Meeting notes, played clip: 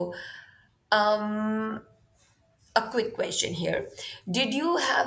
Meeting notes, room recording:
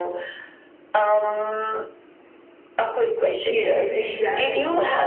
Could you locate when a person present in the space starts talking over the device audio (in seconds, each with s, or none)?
3.5 s